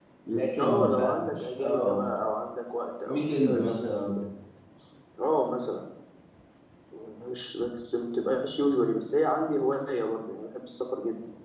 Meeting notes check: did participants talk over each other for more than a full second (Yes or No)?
Yes